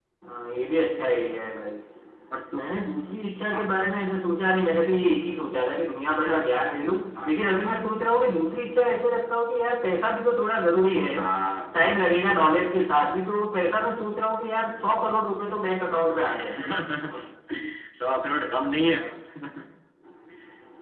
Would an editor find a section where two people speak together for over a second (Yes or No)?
No